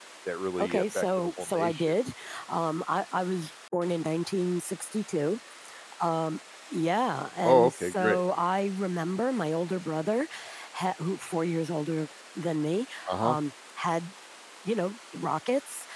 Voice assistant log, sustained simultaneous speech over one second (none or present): present